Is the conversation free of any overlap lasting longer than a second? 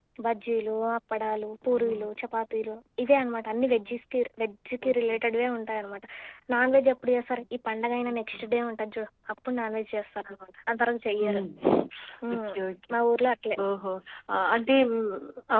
Yes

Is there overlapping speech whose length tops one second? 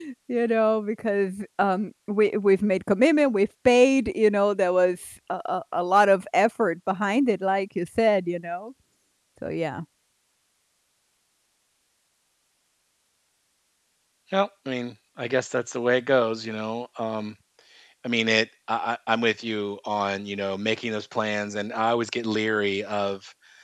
No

